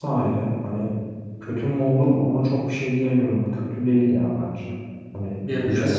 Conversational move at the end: taking over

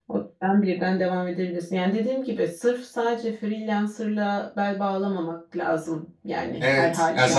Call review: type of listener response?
taking over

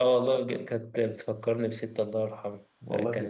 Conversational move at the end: listening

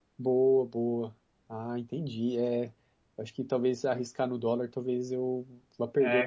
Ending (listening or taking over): taking over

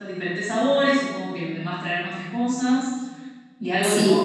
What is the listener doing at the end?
taking over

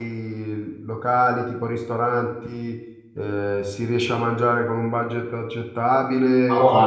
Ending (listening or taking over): taking over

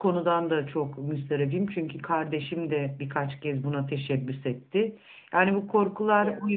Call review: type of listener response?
listening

